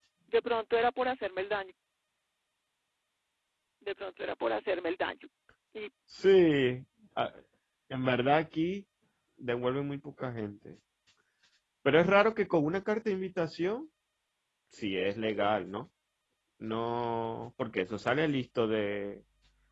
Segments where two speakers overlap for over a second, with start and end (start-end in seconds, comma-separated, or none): none